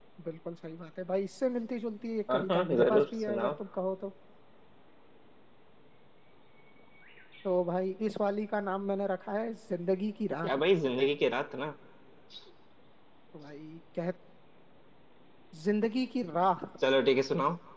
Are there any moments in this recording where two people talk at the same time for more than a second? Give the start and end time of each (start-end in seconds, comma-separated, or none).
2.3-3.5